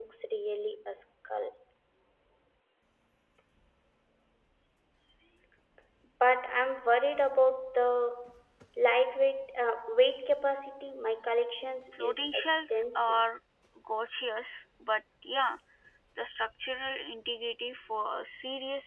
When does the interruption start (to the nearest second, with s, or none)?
12 s